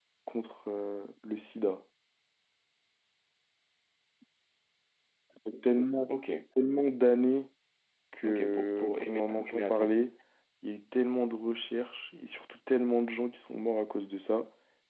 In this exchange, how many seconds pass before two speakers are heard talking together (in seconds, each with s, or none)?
8.2 s